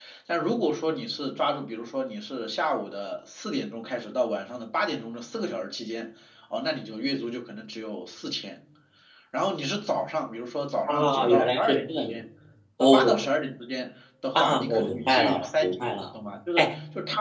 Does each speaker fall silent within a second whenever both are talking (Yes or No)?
No